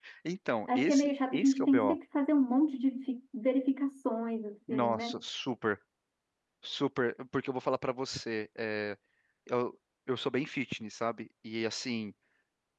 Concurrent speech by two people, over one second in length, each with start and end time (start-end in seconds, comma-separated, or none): 0.8-2.0